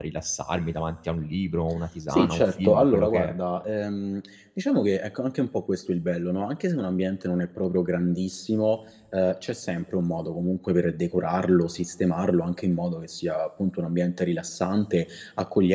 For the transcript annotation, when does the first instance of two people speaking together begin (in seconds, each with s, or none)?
2.1 s